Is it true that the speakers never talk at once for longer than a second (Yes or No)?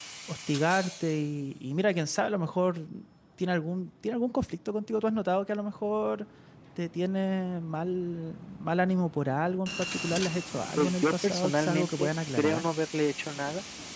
No